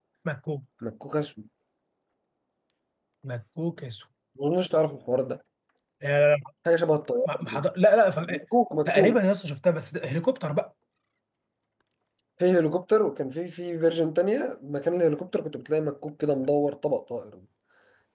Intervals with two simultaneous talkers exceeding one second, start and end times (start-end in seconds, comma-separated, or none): none